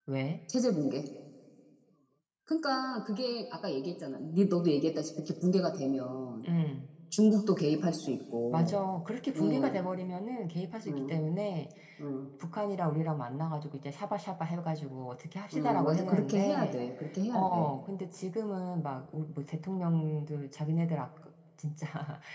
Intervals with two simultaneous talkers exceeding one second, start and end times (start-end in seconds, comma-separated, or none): 15.5-16.8